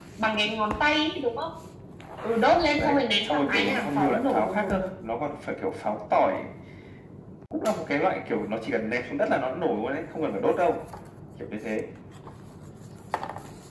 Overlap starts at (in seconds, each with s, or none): 2.8 s